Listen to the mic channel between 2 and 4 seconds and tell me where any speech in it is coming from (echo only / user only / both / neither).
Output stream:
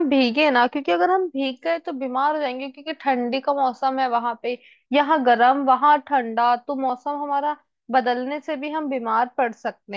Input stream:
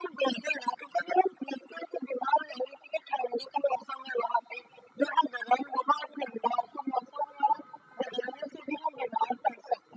echo only